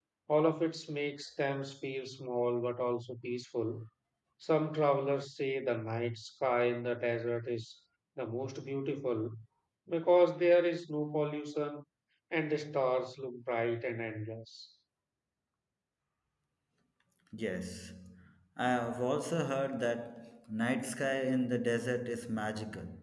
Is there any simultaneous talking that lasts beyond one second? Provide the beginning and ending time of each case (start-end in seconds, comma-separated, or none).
none